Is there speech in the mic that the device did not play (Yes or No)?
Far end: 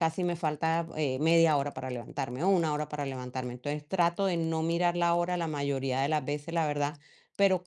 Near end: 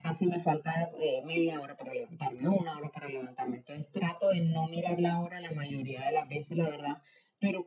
No